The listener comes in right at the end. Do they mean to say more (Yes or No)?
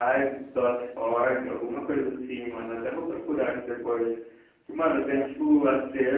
No